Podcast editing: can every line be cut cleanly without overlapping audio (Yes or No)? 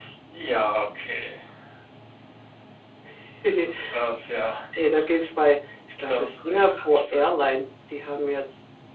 No